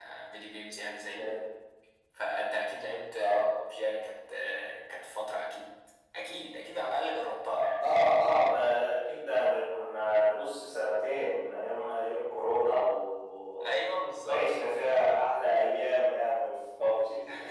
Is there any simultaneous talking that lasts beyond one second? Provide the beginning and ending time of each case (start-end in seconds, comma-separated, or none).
none